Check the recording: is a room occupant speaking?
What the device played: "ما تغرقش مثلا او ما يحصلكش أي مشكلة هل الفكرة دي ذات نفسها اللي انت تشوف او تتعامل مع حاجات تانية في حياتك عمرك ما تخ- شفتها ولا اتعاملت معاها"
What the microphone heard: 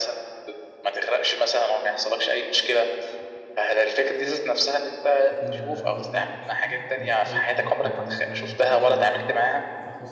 Yes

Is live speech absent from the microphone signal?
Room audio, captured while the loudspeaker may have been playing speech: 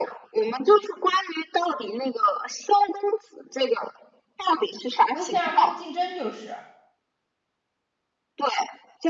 No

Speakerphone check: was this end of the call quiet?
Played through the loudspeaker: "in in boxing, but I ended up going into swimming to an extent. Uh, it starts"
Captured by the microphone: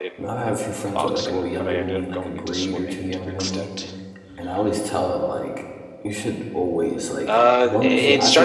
No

